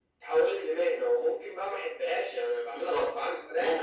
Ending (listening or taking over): taking over